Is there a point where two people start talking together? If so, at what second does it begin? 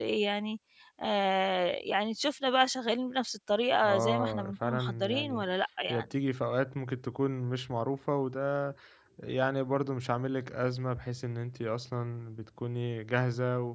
3.8 s

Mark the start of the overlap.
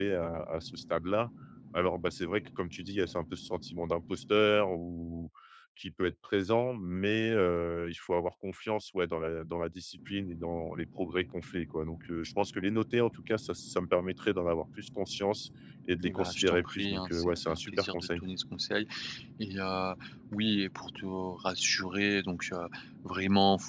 16.0 s

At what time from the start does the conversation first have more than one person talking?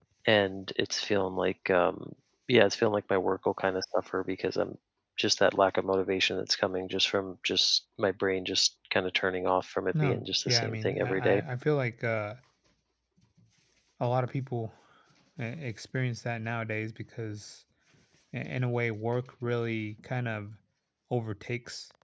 9.9 s

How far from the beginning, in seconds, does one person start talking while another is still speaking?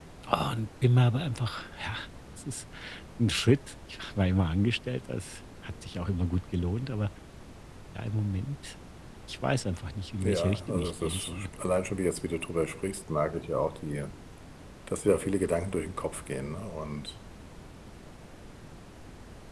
10.2 s

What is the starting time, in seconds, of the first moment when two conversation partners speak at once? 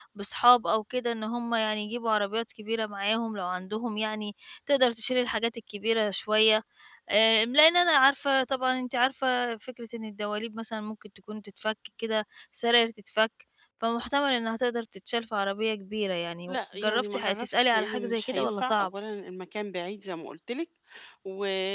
16.5 s

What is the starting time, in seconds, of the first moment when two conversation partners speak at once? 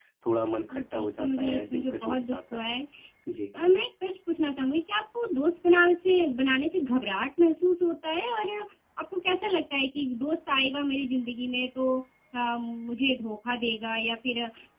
0.7 s

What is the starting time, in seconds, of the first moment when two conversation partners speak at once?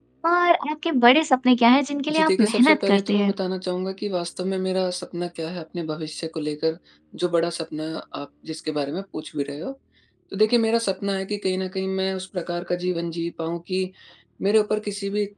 2.1 s

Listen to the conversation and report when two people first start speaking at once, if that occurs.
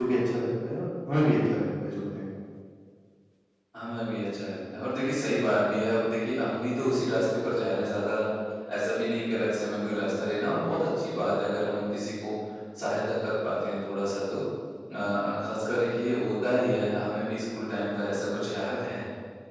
none

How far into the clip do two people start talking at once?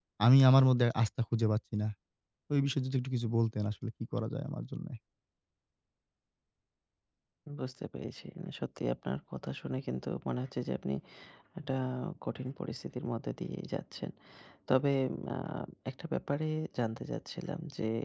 none

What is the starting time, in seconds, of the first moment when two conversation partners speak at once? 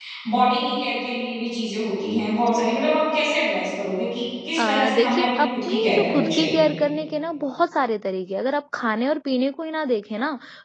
4.6 s

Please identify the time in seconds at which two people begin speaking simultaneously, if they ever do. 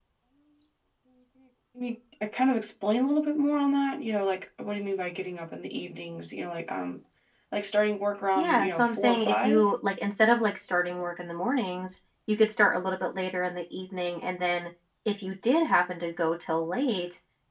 8.3 s

